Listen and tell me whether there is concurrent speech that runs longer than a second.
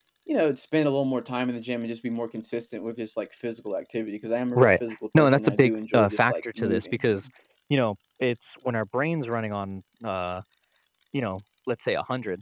Yes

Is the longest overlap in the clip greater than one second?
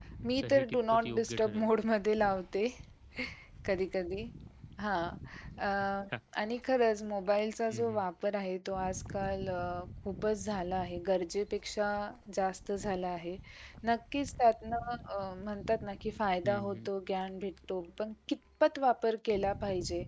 Yes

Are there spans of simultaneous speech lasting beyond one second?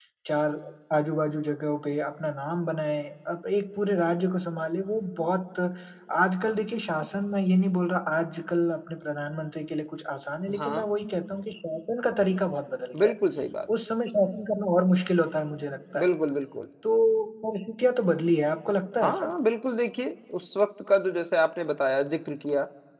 No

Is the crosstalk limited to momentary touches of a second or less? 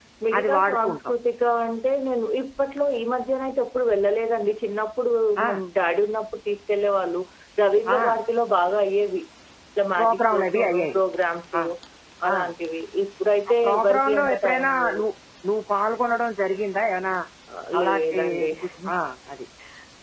No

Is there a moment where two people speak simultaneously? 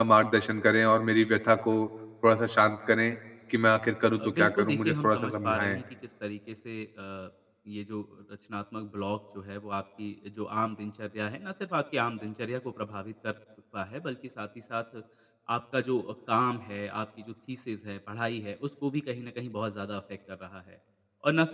Yes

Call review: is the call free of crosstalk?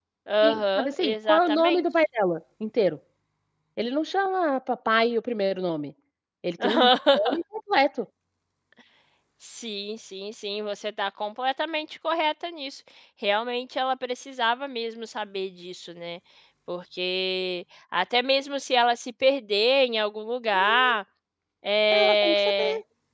No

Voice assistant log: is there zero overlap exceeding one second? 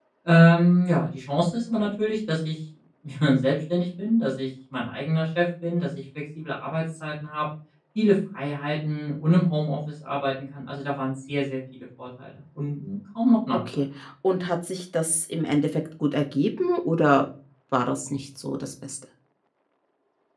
Yes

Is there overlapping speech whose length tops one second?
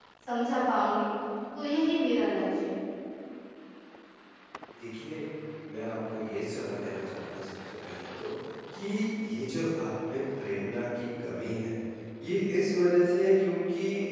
No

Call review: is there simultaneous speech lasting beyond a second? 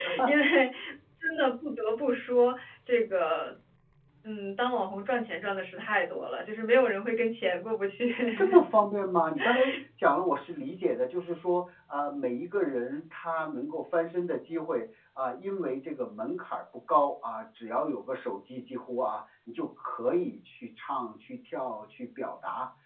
No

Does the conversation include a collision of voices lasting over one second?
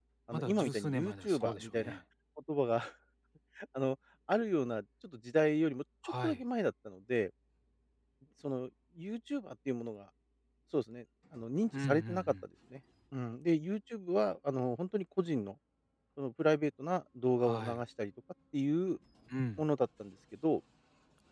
Yes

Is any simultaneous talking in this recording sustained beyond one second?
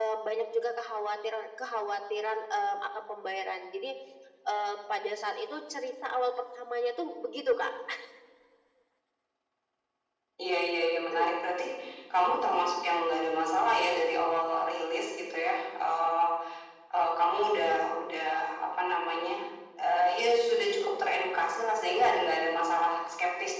No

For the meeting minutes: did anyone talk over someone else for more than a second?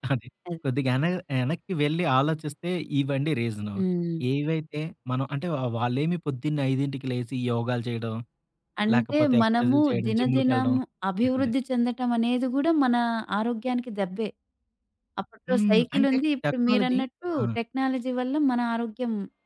Yes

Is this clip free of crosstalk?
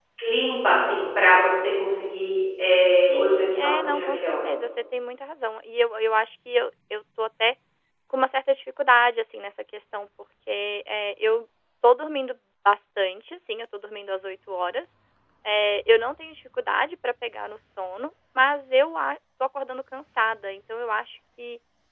No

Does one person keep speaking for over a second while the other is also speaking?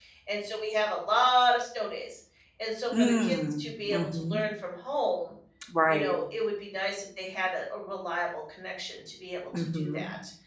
Yes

